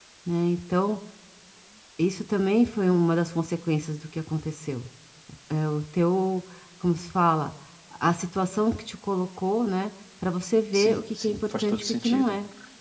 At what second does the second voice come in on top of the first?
10.7 s

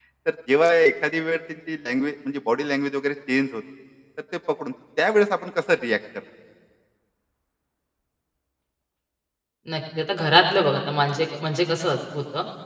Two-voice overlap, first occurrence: none

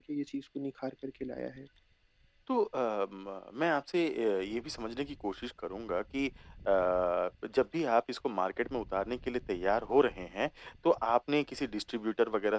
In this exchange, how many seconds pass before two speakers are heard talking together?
none

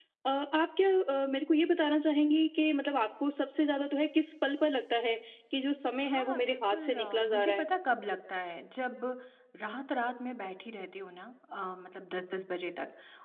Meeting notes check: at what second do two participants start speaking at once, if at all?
6.0 s

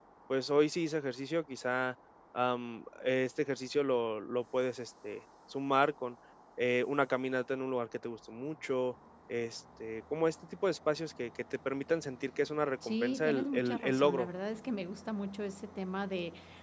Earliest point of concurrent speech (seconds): 12.8 s

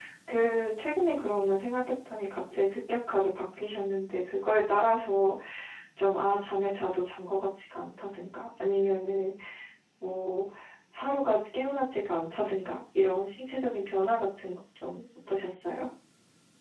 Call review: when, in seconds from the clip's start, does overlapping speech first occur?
none

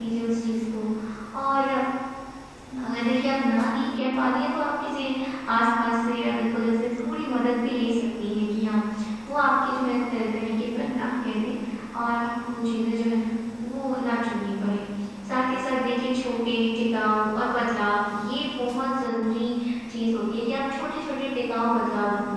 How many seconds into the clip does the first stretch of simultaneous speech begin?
none

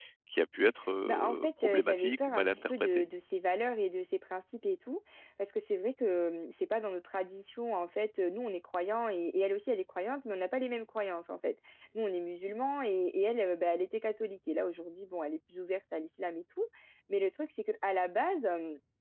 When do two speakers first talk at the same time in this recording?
1.1 s

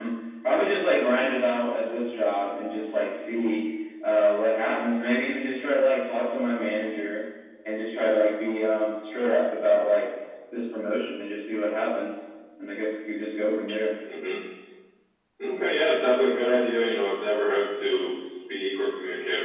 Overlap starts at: none

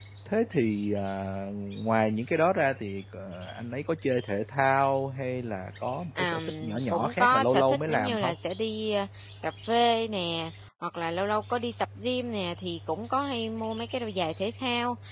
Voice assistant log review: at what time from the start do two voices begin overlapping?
6.2 s

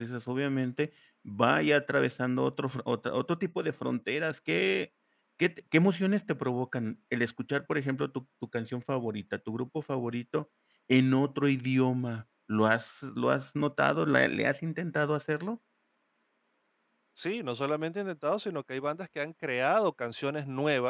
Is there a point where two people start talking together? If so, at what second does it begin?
none

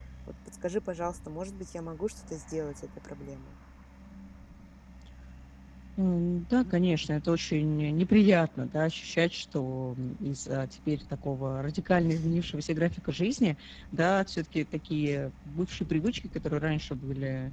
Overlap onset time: none

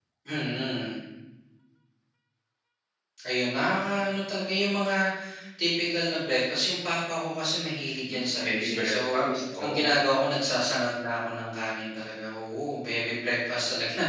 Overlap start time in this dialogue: 8.0 s

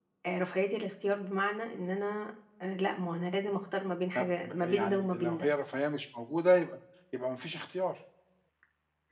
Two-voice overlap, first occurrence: 4.2 s

